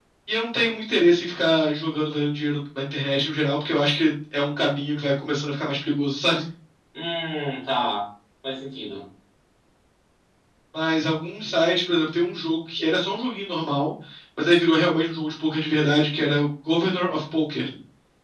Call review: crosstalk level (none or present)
none